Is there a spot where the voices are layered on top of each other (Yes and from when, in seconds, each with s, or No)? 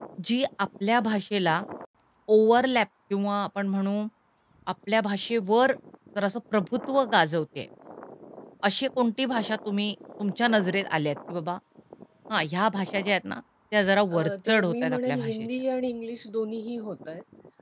Yes, from 14.1 s